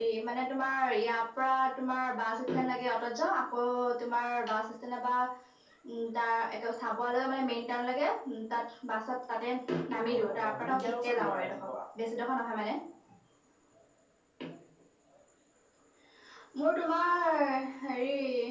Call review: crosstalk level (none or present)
present